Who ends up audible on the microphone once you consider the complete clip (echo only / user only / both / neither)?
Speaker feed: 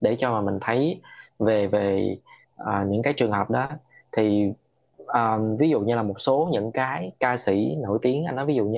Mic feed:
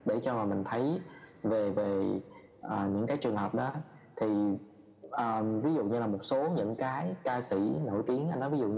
echo only